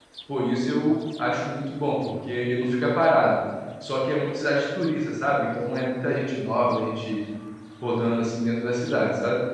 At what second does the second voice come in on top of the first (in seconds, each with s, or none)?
none